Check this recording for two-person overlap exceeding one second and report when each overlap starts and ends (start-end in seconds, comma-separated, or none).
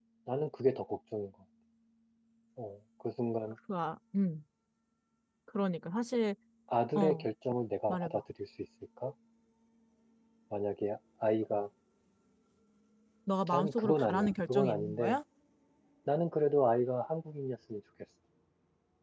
13.5-15.2